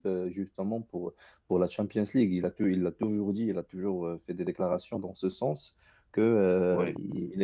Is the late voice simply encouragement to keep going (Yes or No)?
Yes